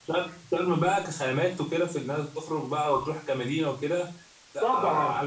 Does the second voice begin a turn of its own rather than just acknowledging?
Yes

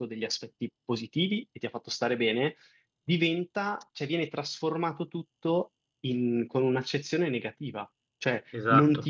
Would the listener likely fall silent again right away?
Yes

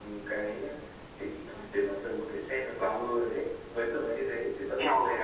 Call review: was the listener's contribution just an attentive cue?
No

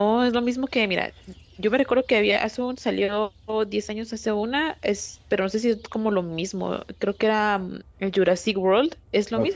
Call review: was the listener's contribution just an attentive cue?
No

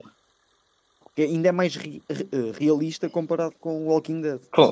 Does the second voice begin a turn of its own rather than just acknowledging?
Yes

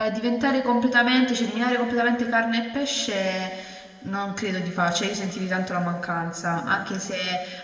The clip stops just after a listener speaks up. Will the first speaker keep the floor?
Yes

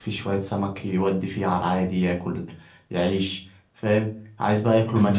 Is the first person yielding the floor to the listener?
No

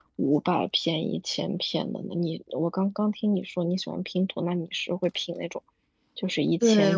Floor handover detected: Yes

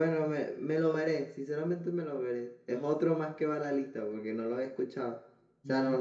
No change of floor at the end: Yes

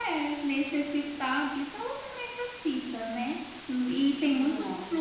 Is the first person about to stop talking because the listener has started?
No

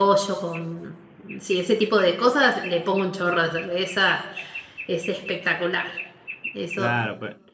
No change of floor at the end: No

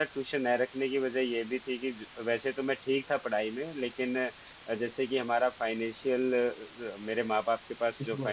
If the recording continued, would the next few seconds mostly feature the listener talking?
No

